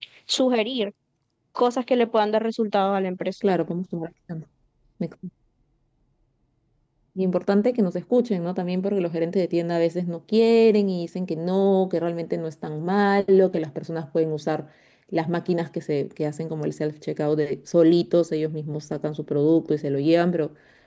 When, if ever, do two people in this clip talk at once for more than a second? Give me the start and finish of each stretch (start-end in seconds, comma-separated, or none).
none